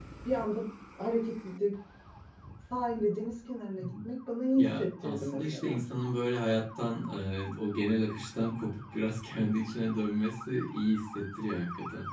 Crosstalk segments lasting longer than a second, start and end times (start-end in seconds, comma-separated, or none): 4.6-5.8